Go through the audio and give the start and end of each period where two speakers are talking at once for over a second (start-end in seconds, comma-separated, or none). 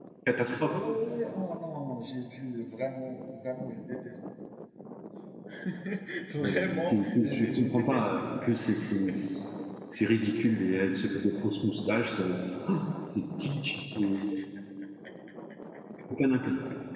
6.4-8.1